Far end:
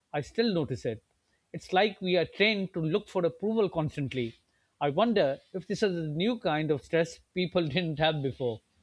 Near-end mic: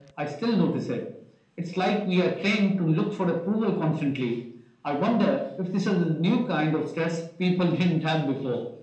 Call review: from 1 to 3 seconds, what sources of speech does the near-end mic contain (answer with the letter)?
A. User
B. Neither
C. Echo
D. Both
C